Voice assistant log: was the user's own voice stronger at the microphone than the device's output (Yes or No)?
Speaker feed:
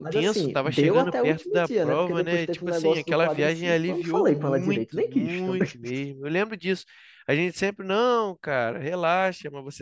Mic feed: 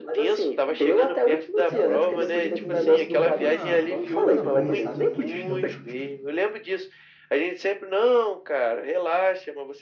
No